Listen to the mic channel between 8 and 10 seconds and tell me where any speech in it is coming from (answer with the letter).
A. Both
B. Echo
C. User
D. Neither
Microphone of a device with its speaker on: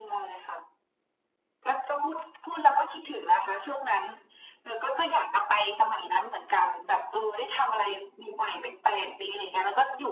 B